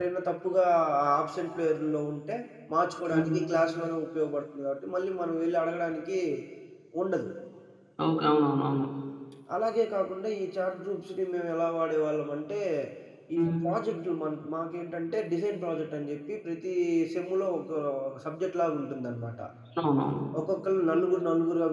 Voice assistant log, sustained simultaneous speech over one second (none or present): none